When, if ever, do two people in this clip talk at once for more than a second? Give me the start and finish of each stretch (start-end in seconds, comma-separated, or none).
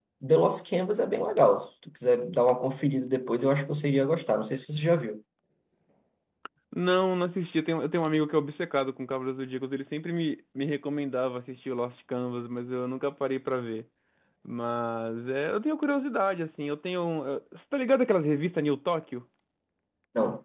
none